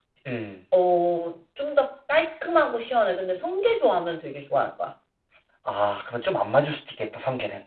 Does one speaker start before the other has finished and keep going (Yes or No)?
No